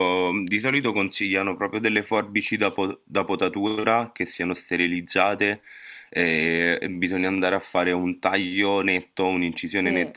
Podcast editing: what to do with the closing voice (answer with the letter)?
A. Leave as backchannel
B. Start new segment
A